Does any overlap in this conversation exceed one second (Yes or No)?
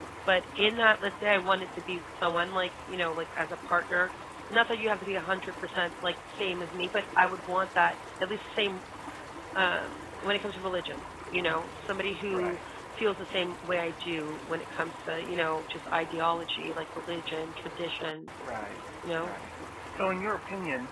No